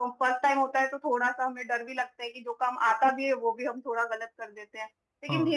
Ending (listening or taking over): listening